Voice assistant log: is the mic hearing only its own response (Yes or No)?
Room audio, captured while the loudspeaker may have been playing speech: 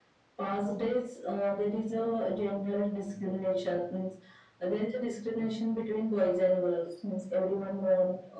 Yes